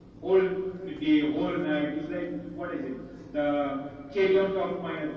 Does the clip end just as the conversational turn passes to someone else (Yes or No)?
No